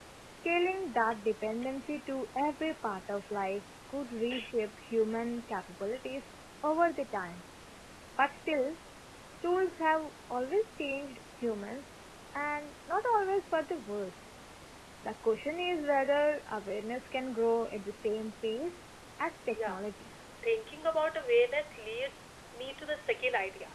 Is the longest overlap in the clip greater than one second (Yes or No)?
No